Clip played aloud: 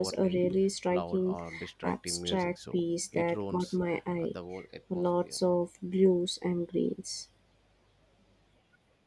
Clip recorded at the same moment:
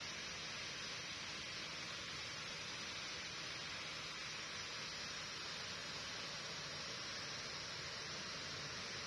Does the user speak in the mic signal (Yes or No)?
No